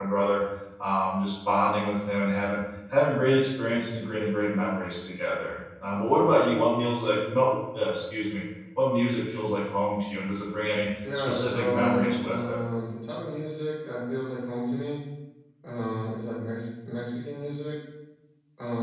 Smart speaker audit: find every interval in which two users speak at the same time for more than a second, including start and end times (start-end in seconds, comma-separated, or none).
11.2-12.6